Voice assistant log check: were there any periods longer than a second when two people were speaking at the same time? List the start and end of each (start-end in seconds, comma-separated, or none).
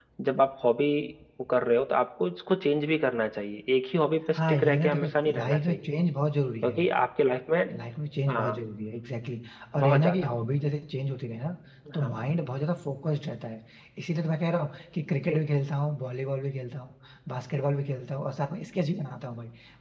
4.4-5.9